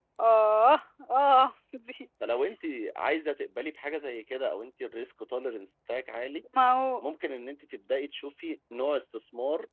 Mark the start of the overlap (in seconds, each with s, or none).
none